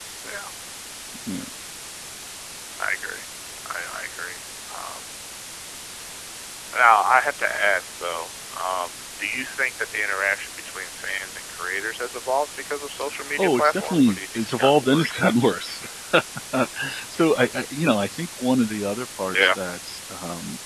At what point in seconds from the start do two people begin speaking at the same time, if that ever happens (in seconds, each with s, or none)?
13.2 s